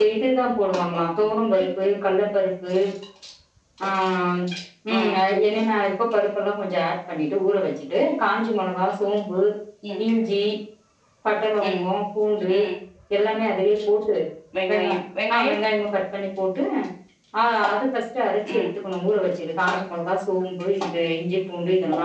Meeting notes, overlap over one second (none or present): none